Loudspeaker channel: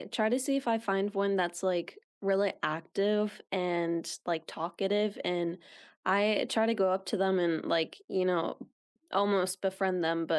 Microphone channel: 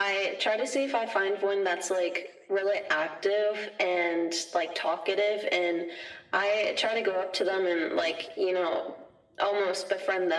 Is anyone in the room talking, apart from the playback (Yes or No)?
No